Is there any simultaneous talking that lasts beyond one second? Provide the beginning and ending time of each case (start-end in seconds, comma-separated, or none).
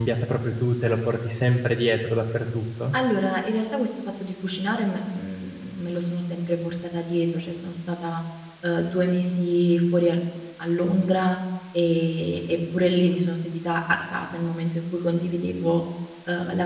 none